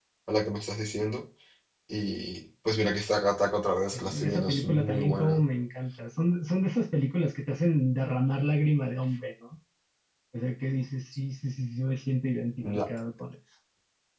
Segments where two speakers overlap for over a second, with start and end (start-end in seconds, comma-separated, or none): 3.9-5.4